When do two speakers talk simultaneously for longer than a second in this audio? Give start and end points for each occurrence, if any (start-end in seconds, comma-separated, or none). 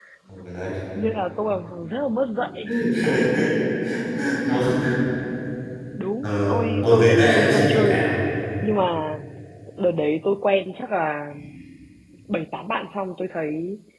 6.2-7.9